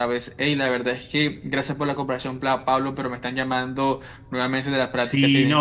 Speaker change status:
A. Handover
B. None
A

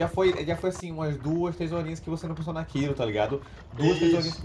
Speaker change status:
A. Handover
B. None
B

